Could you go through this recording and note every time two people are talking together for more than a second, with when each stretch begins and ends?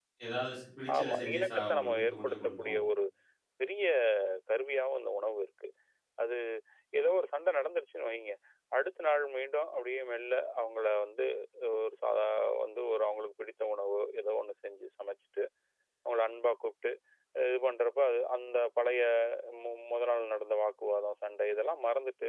1.0-2.8

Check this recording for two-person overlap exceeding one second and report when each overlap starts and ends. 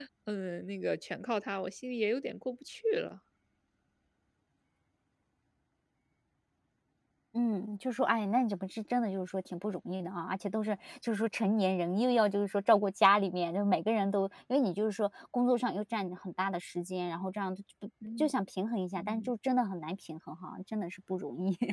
none

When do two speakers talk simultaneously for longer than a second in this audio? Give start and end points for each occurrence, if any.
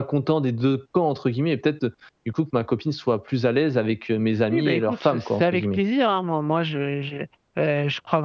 4.5-5.8

